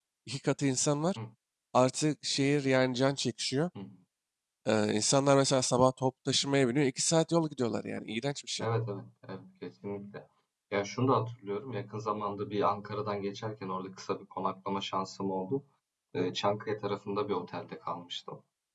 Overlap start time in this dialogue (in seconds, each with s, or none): none